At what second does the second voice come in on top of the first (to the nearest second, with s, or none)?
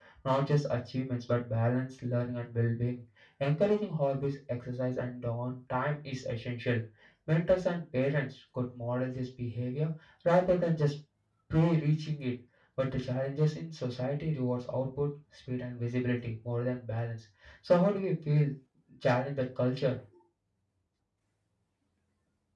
none